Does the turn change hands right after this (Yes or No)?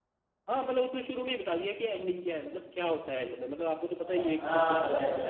Yes